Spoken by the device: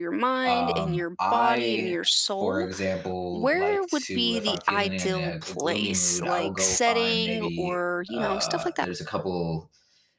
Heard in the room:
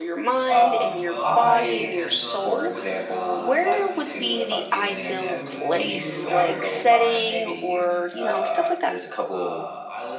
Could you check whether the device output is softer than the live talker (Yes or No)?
No